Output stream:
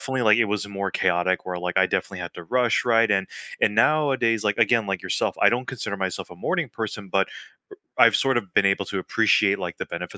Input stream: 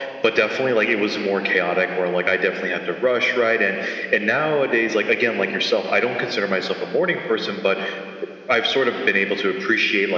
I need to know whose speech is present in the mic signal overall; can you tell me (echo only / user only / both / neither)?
echo only